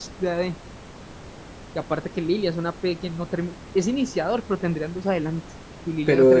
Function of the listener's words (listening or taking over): taking over